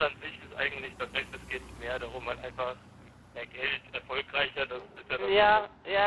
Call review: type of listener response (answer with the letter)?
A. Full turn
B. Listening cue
A